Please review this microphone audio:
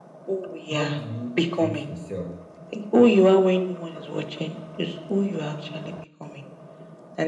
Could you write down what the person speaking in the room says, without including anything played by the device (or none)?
How do you treat yourself?